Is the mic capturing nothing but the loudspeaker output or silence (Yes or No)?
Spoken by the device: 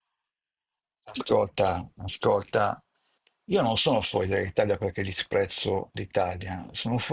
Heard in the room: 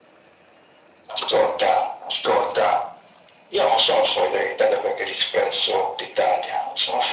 Yes